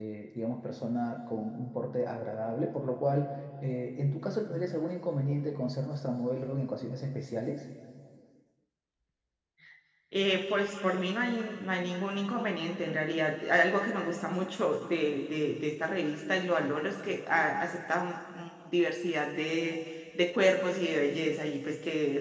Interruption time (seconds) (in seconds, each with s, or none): none